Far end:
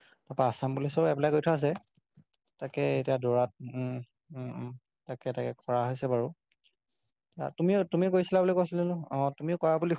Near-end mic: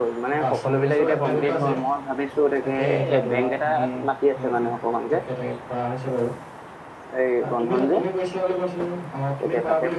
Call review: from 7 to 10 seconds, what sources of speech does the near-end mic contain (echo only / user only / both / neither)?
both